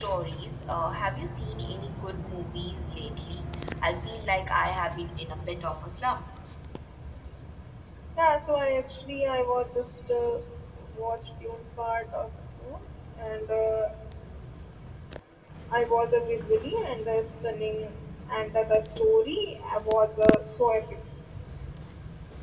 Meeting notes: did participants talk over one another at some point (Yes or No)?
No